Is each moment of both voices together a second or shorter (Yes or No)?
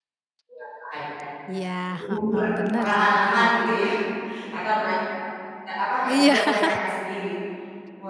No